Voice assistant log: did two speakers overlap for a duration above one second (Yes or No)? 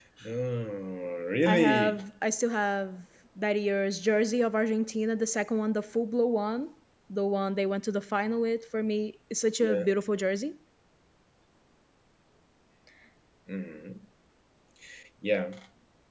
No